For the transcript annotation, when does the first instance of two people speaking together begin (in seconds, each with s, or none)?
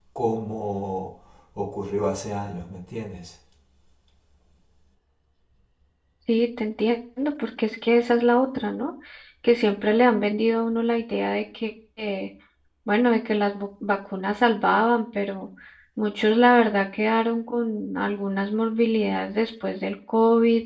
none